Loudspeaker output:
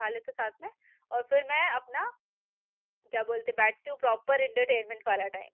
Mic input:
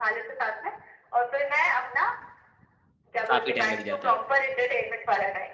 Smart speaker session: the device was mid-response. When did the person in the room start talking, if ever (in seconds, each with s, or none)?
3.3 s